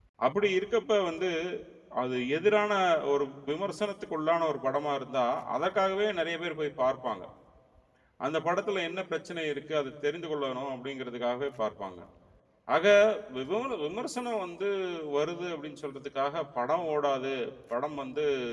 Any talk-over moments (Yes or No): No